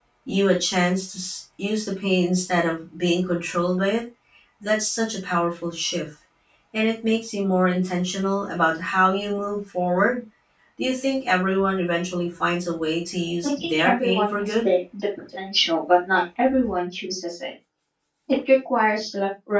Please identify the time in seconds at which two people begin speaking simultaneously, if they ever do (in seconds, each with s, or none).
13.4 s